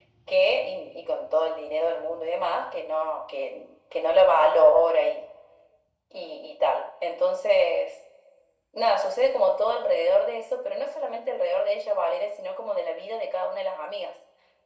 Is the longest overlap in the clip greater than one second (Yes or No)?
No